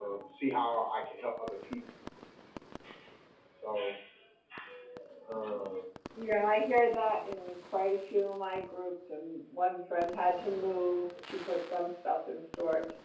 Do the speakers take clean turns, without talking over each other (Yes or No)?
Yes